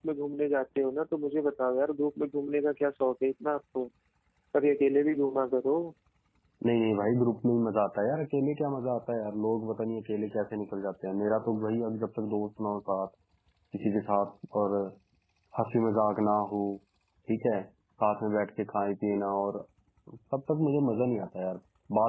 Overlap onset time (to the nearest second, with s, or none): none